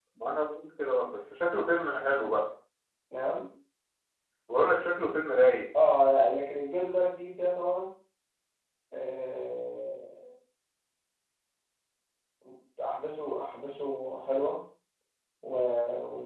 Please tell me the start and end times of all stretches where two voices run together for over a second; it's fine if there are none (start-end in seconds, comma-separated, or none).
none